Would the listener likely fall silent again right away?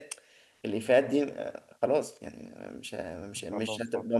Yes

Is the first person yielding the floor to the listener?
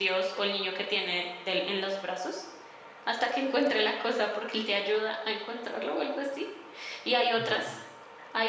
No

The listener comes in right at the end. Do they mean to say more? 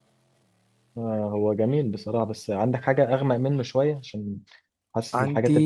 No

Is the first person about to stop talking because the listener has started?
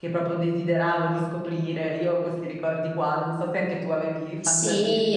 Yes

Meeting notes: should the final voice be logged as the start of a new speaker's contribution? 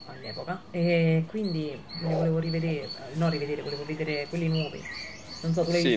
Yes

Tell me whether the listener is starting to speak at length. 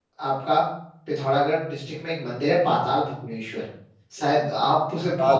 No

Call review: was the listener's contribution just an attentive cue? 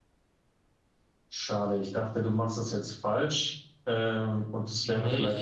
Yes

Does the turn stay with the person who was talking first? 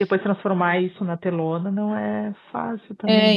No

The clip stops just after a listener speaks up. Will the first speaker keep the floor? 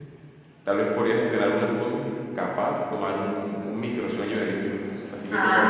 No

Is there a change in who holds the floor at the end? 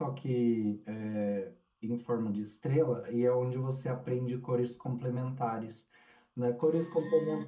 No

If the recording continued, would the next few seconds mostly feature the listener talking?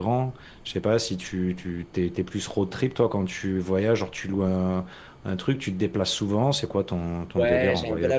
Yes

